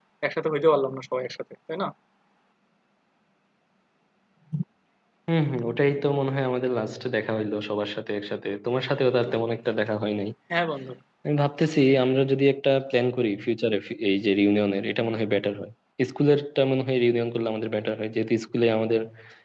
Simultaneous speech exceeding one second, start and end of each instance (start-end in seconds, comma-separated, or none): none